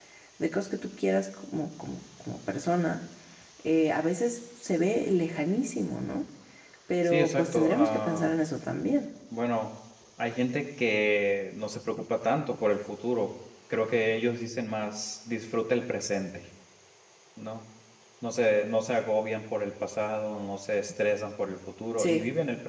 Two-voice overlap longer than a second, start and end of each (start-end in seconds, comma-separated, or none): 7.0-8.3